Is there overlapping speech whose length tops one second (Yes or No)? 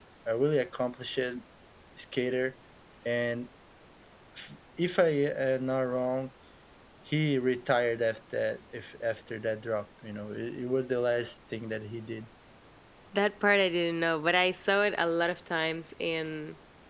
No